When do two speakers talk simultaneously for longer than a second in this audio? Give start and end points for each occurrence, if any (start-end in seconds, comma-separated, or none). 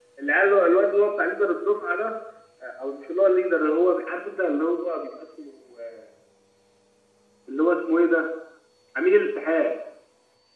none